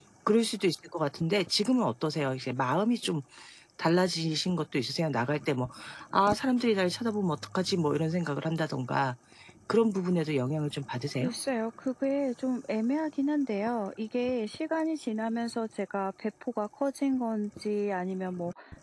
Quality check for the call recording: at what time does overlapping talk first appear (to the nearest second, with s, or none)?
none